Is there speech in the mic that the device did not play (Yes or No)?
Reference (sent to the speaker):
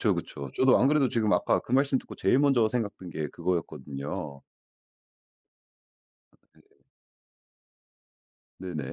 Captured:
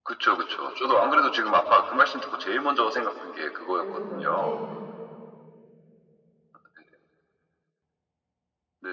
Yes